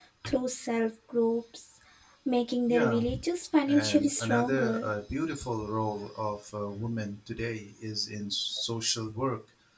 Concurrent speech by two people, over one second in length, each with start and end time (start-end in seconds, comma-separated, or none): 3.6-4.9